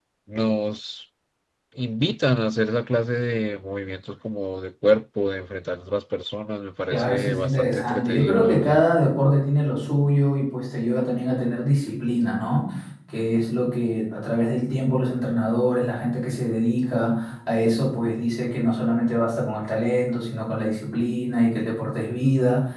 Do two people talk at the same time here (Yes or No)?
Yes